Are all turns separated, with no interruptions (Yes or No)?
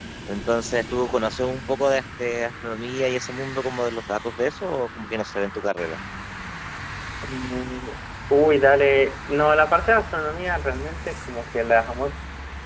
Yes